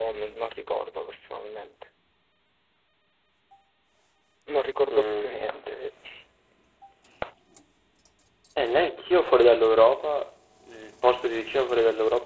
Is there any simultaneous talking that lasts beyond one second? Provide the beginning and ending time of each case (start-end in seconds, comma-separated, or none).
none